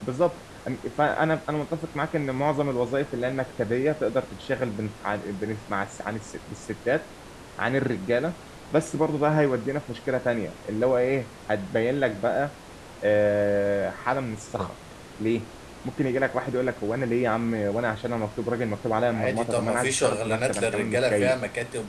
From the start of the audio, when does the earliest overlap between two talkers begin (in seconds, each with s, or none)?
19.1 s